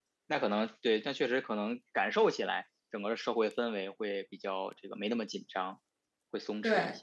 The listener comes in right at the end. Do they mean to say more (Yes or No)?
Yes